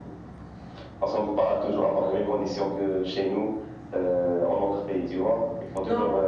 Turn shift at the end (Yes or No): No